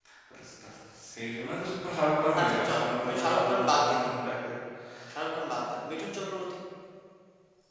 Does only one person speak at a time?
No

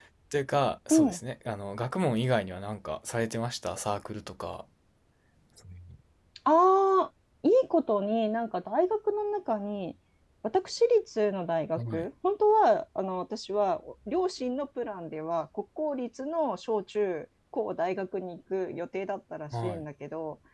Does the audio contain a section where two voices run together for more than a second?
No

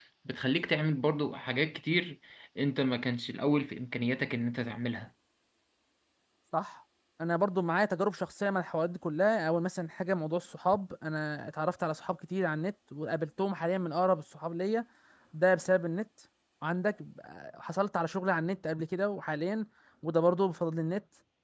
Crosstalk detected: No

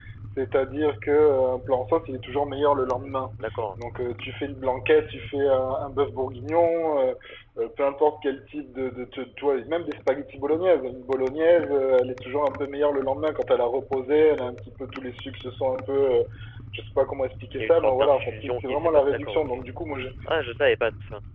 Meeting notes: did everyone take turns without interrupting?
No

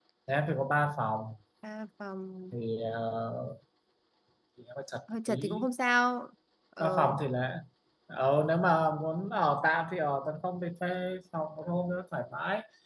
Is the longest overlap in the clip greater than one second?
No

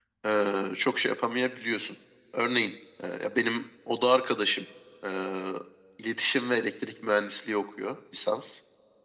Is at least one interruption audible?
No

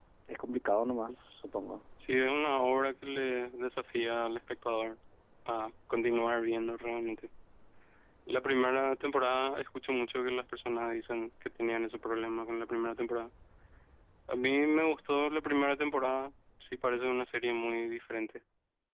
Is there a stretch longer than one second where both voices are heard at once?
No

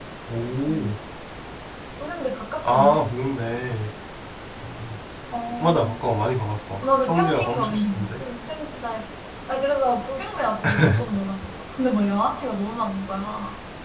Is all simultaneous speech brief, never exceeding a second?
No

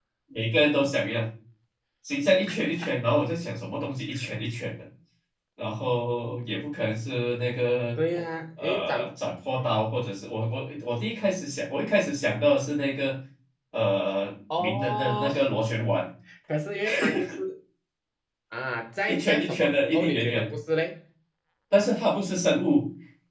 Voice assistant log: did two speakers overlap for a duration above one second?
Yes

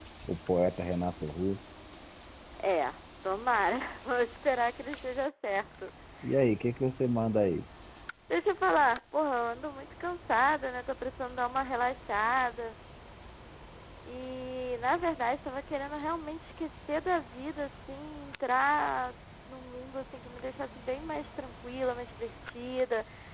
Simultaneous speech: No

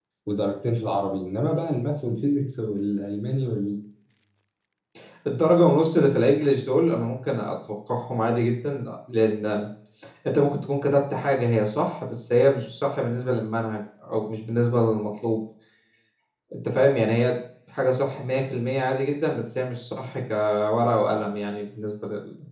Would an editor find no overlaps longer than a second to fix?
Yes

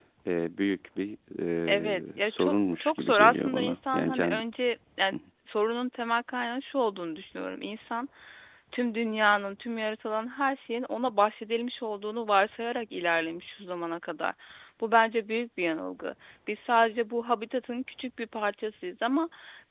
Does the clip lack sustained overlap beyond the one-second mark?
No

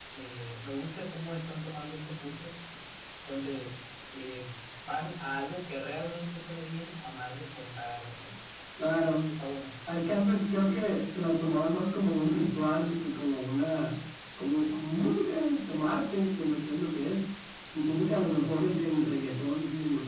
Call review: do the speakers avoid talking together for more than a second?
Yes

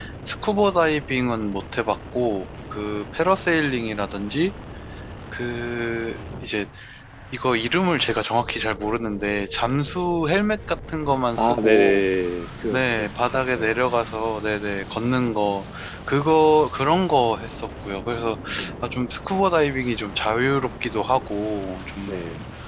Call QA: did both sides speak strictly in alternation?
No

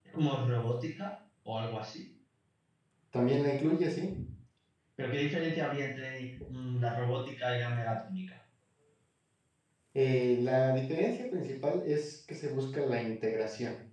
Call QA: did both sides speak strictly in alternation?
Yes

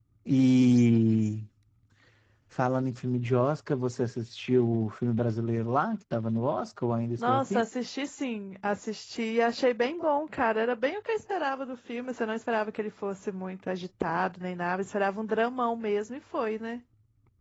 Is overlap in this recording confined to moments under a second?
Yes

